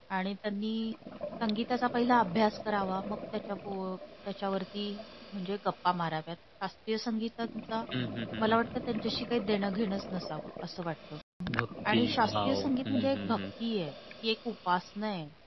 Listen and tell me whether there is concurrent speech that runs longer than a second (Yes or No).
Yes